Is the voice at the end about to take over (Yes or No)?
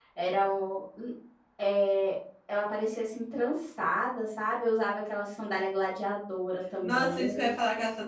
Yes